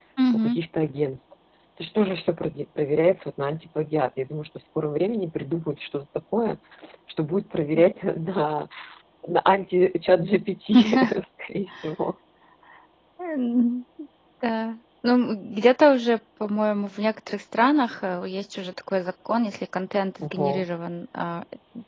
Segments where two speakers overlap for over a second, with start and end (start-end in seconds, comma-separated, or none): none